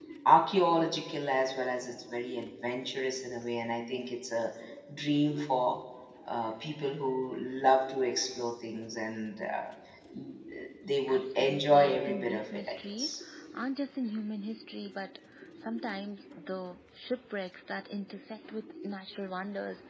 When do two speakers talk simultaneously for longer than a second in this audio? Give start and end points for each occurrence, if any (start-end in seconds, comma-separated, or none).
11.1-13.1